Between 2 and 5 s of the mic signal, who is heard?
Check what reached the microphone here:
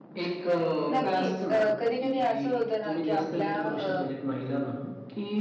both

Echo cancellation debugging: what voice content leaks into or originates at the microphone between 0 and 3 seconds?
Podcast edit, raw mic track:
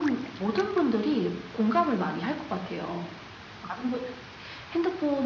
echo only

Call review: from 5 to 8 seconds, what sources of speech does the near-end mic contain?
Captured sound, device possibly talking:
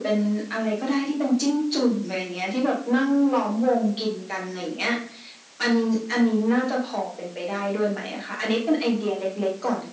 echo only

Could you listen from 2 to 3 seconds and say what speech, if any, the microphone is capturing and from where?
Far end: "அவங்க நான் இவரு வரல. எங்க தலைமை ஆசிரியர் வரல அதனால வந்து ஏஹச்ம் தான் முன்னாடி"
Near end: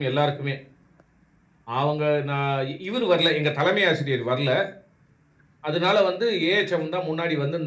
echo only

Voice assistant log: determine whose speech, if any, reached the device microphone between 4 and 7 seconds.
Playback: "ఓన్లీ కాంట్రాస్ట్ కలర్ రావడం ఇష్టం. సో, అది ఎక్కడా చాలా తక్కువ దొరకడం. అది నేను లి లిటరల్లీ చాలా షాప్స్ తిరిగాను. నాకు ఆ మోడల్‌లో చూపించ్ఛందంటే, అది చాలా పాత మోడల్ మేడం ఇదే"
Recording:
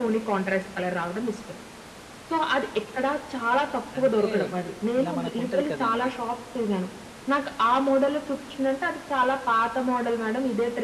both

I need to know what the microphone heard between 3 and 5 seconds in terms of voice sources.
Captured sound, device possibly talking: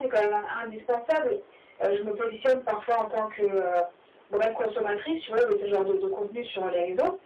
echo only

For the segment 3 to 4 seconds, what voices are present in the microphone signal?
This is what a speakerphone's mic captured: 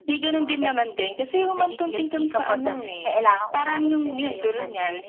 both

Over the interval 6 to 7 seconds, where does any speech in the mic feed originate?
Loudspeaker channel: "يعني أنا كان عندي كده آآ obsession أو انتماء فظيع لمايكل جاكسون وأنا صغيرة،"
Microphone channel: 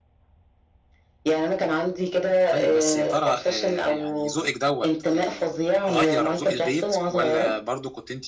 both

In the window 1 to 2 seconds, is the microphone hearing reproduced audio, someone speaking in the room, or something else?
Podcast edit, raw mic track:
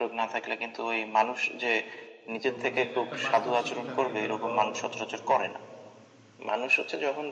echo only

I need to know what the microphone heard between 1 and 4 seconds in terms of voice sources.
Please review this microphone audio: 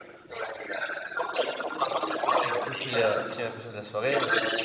both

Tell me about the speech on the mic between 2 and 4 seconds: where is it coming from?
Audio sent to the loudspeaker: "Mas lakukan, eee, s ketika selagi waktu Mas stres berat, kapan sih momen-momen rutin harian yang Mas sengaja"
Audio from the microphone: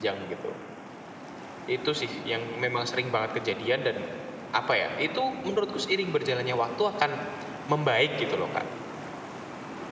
user only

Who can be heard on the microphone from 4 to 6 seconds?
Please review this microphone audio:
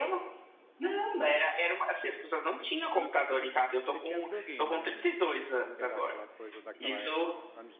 both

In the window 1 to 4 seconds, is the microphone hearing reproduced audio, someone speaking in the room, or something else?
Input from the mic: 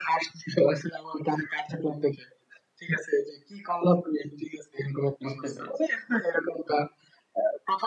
echo only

